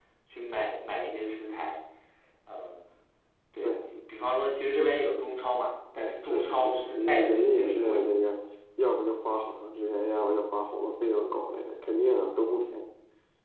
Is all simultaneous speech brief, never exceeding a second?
No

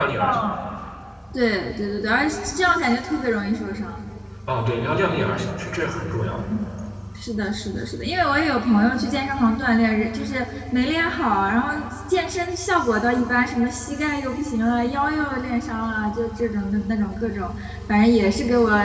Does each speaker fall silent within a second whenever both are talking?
Yes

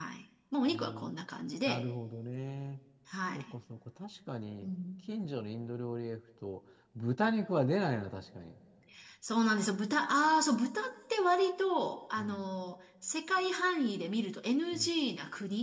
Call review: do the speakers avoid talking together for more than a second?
Yes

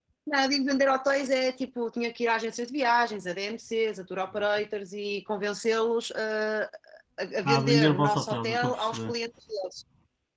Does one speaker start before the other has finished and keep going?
Yes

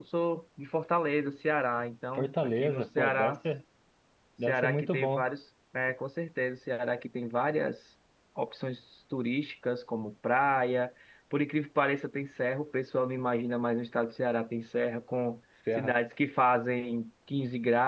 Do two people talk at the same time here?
Yes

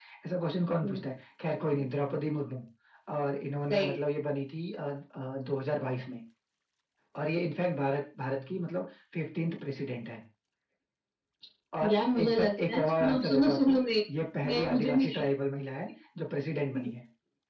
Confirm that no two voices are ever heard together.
No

